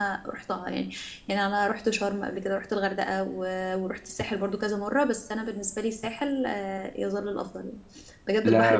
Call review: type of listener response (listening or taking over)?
listening